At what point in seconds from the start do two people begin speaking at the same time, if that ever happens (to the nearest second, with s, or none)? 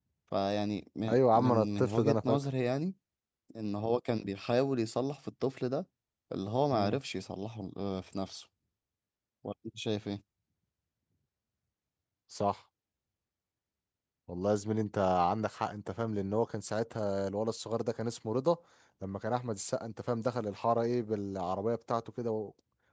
1 s